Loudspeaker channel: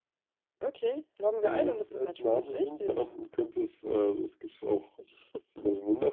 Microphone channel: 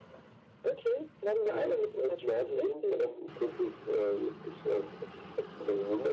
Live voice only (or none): none